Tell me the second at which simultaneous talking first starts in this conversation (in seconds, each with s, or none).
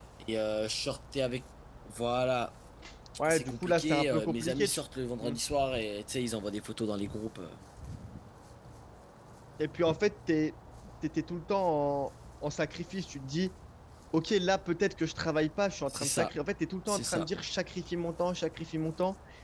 3.3 s